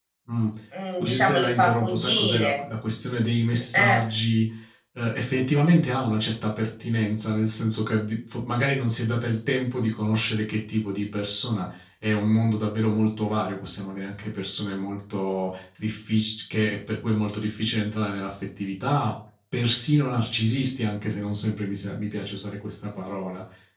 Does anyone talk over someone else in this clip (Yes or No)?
Yes